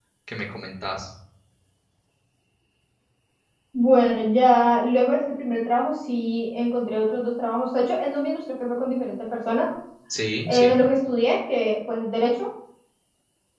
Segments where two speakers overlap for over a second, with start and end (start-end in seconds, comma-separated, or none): none